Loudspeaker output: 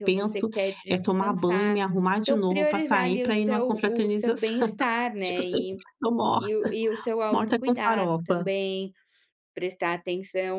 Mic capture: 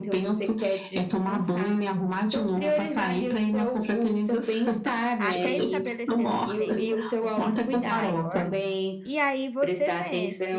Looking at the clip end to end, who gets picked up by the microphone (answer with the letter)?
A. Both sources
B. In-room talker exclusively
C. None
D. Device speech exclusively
A